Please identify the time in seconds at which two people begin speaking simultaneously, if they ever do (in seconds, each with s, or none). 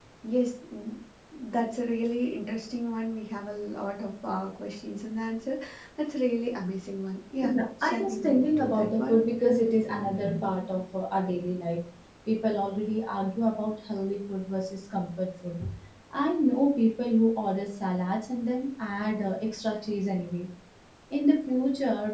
7.4 s